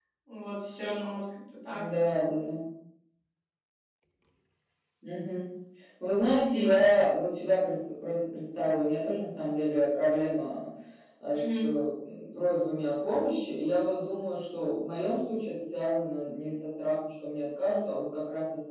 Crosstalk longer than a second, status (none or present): none